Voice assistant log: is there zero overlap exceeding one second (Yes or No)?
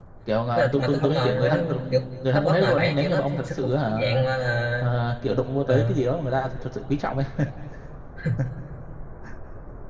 No